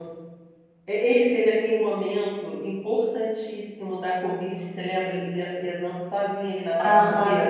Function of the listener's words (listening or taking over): taking over